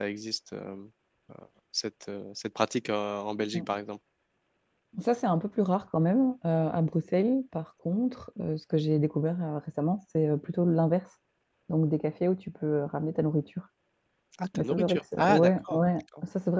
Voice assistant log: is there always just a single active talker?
No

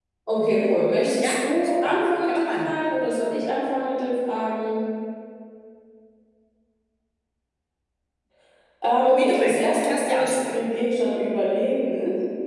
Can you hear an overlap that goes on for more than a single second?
Yes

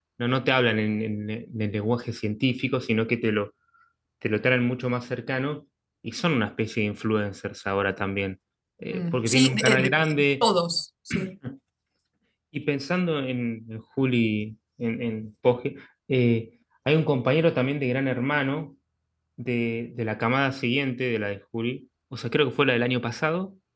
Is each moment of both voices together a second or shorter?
No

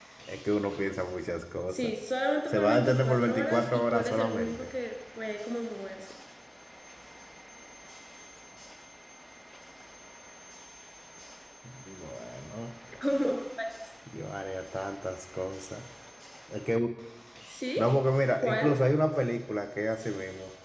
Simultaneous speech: Yes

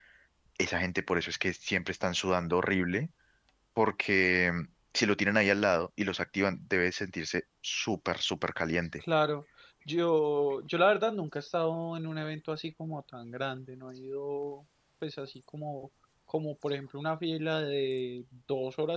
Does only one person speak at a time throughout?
Yes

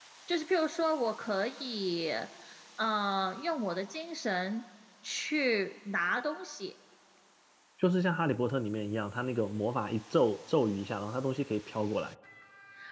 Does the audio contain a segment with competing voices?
No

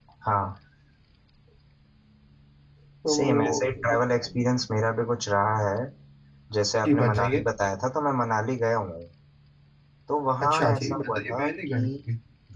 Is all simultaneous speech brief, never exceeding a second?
No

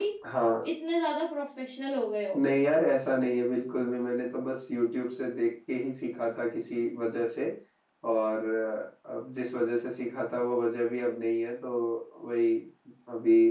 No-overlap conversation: Yes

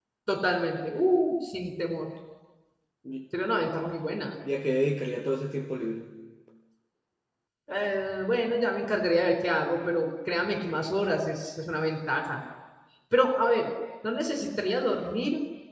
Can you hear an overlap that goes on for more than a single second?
No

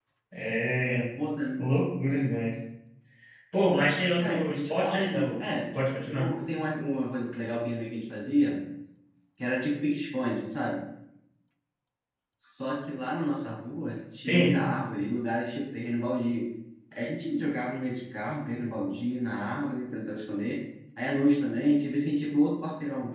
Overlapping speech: Yes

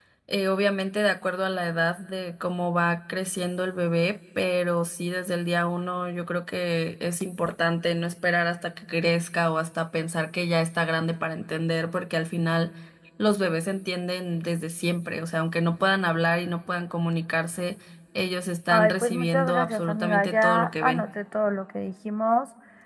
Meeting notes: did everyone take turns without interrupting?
No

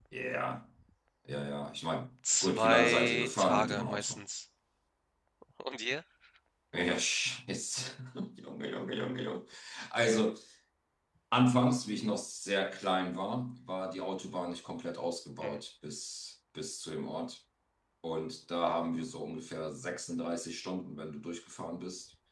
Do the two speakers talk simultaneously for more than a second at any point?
Yes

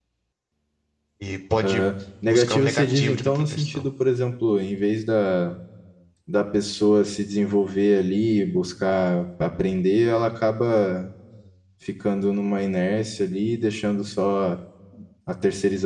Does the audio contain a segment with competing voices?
Yes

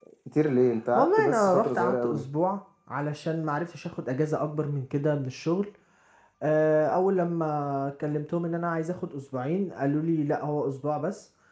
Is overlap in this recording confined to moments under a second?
No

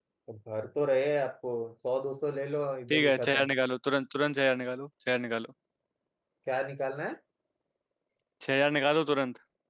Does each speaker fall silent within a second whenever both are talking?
Yes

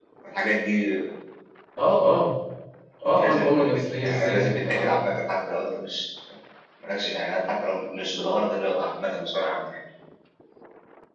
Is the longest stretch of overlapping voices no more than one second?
No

